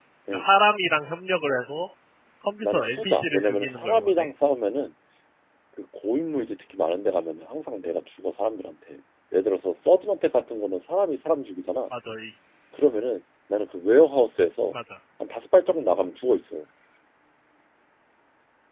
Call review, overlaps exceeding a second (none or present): present